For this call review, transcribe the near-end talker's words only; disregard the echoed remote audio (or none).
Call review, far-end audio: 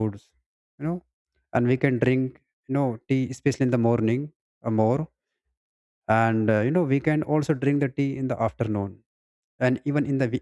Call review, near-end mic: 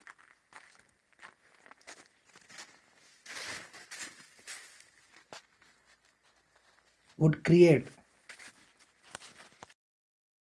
would create